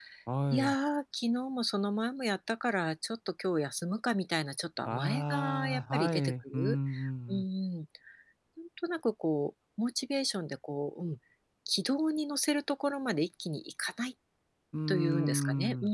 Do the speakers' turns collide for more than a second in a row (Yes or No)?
Yes